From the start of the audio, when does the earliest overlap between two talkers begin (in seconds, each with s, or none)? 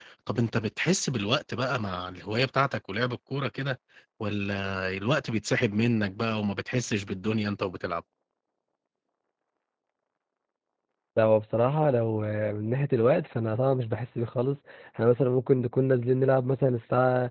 none